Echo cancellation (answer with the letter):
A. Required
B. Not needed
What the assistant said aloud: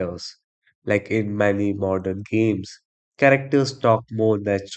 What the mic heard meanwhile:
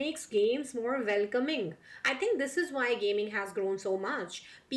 B